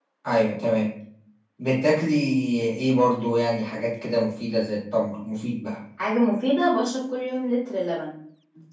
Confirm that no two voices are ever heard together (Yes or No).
Yes